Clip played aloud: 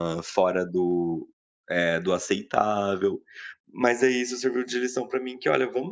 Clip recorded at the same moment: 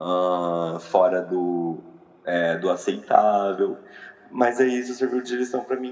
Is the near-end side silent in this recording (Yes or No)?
Yes